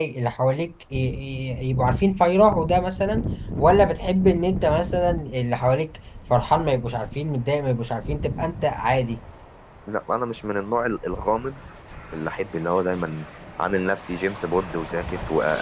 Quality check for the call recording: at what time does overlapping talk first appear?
none

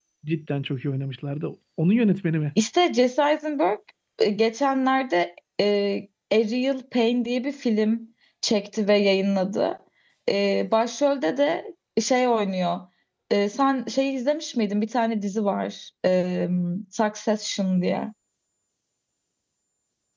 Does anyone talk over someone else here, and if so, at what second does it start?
none

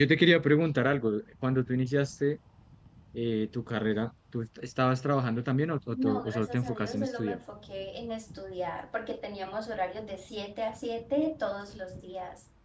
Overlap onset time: 5.9 s

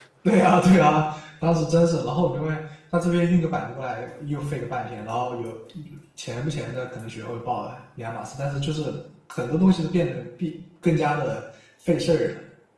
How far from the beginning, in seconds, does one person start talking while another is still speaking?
none

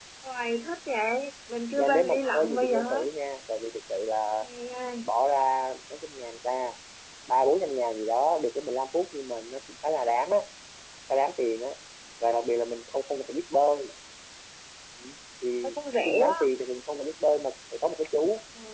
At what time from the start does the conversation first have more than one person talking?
1.8 s

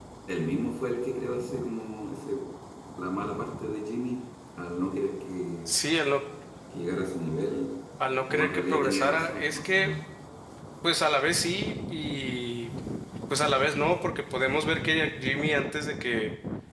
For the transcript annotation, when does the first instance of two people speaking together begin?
8.3 s

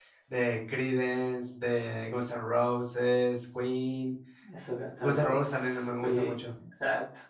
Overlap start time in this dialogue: 5.0 s

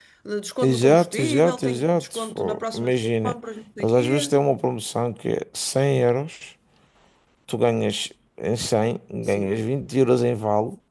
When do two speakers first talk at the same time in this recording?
0.6 s

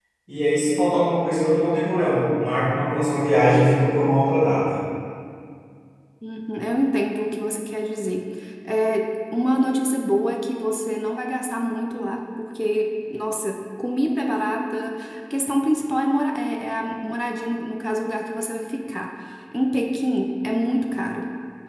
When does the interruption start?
none

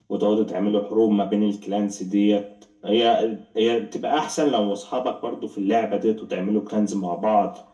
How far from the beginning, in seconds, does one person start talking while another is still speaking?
none

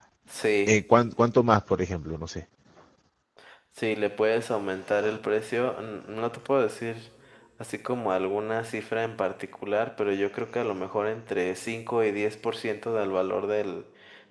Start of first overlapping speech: none

